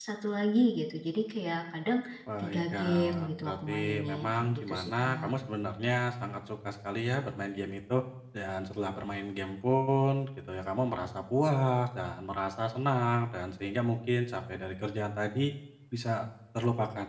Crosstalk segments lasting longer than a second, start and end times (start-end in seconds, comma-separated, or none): 2.4-5.3